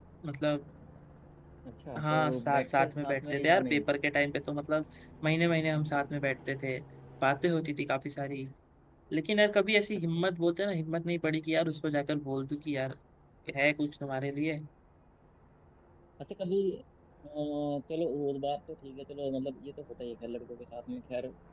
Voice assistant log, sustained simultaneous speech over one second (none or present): present